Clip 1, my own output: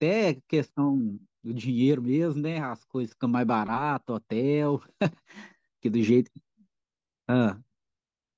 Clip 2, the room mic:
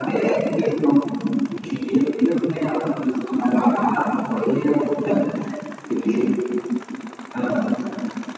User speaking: No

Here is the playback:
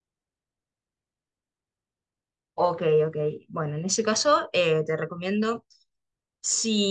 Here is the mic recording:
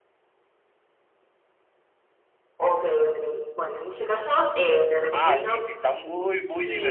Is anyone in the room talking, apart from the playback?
Yes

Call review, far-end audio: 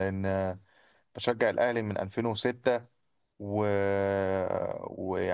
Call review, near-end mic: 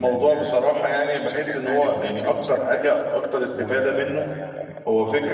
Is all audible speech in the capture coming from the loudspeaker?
No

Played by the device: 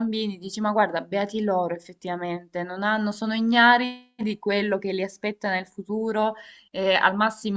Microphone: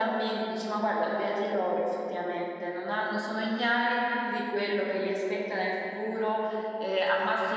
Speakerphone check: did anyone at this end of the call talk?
No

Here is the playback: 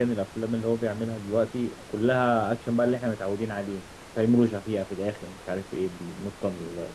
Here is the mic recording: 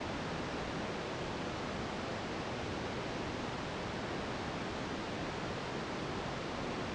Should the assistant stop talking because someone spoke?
No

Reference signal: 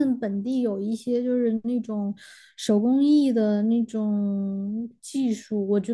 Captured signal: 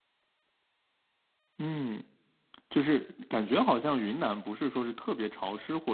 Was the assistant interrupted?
Yes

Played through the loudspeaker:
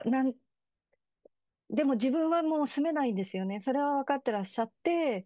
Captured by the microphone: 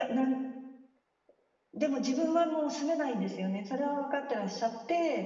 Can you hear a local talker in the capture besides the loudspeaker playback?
No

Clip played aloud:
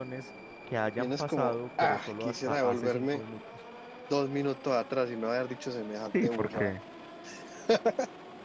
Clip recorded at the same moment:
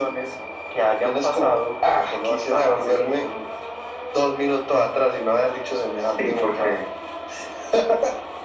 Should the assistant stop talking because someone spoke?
No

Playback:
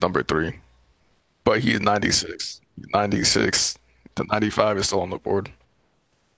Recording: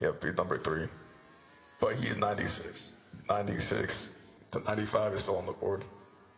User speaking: No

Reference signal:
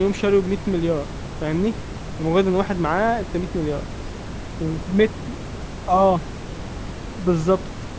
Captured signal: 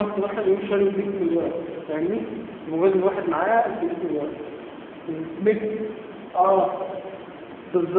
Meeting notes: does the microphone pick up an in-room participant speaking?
No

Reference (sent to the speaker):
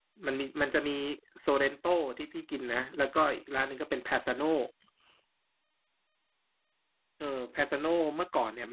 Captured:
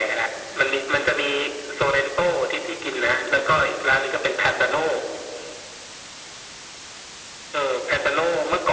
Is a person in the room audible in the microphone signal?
No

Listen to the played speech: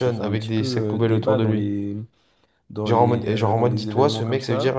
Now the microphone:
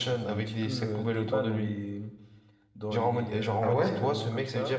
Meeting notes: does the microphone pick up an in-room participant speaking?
Yes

